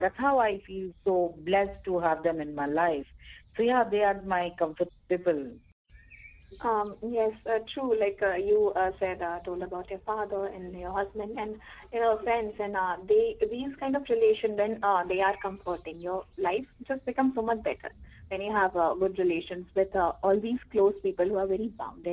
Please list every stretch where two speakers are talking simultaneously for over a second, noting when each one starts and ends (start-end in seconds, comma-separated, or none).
none